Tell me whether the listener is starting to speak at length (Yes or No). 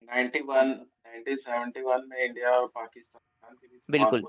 Yes